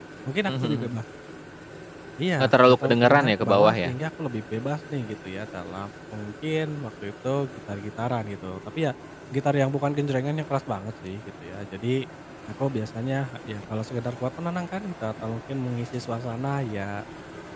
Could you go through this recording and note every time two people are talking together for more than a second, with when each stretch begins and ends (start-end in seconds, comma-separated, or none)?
2.4-3.9